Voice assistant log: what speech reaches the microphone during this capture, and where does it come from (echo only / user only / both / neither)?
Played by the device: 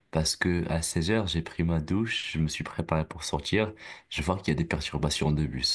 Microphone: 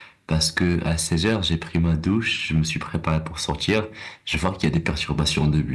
echo only